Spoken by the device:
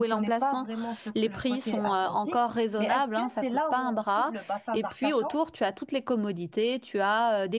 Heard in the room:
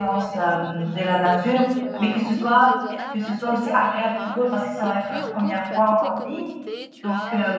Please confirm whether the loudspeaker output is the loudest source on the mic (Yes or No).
No